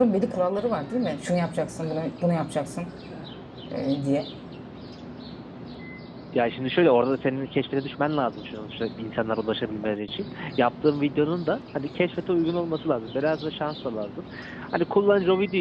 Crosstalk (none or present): none